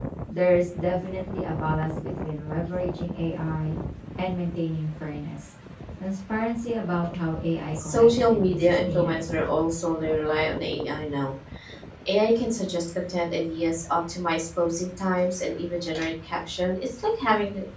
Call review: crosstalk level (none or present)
present